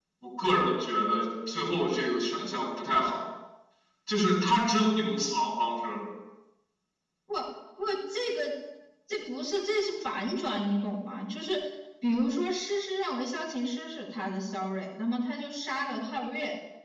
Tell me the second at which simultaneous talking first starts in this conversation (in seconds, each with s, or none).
none